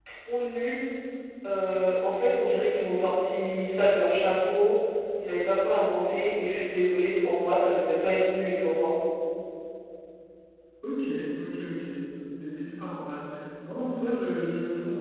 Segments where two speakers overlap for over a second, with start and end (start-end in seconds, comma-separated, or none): none